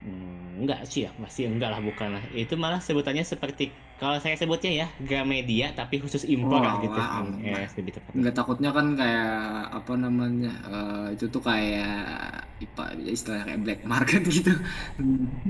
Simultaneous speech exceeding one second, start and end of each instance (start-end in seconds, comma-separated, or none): 6.4-7.6